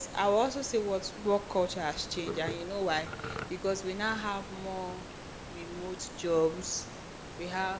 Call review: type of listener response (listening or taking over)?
listening